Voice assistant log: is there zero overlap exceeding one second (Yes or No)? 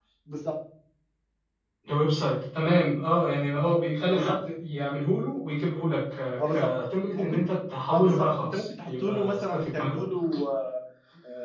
No